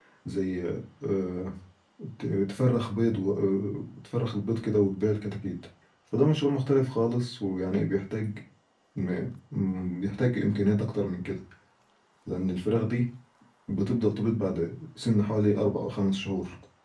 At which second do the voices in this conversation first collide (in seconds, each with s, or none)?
none